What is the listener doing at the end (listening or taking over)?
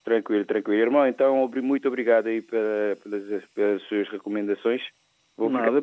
listening